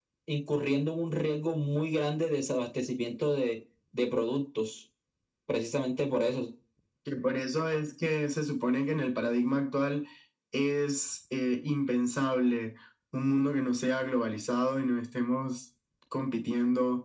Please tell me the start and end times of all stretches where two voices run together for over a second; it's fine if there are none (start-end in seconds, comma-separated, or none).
none